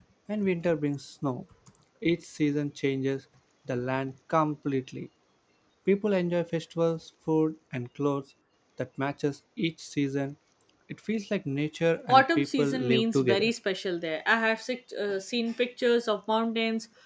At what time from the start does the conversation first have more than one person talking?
12.1 s

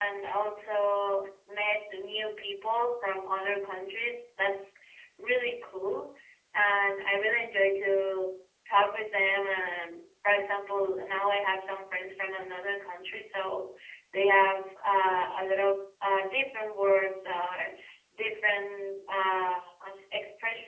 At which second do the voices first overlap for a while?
none

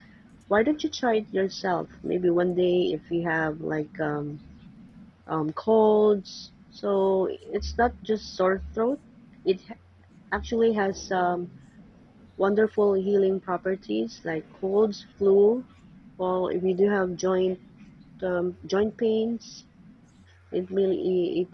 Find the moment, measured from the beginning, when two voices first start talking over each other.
none

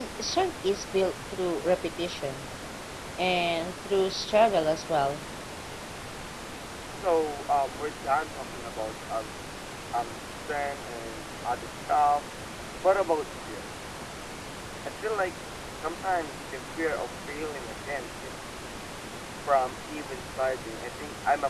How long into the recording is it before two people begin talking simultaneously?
none

